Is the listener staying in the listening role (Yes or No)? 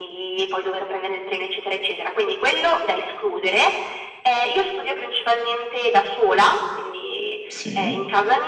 Yes